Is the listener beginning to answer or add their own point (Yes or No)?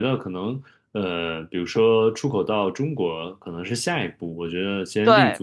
No